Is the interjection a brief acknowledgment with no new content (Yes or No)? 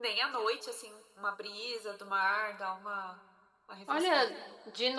No